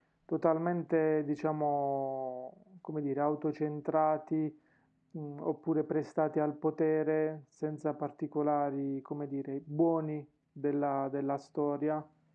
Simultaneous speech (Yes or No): No